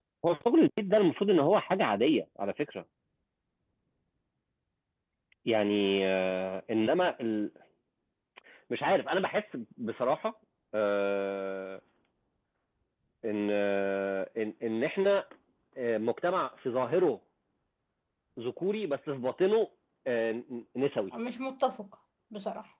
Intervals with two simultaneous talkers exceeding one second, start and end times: none

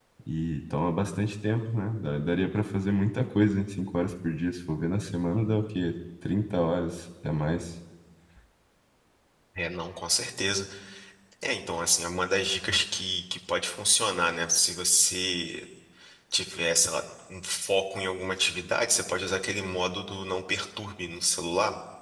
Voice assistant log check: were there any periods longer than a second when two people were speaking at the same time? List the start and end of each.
none

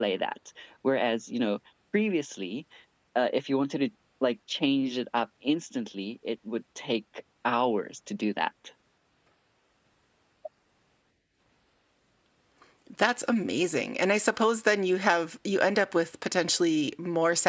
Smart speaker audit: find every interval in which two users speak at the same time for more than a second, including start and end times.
none

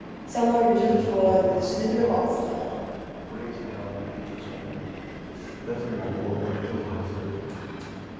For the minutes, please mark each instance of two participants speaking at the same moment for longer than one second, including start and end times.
0.7-2.6

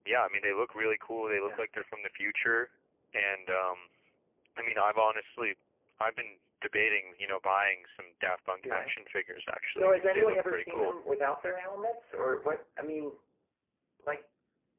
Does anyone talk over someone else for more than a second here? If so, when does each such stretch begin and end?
9.7-11.0

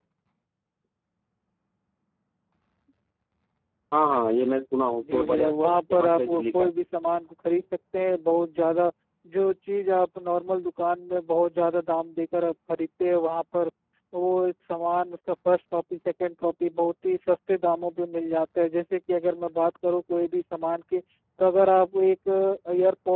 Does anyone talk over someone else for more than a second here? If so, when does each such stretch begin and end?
4.8-6.6

